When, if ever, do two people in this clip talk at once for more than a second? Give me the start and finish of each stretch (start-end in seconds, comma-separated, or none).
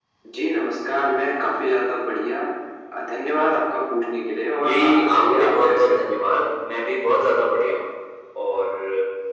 4.7-6.0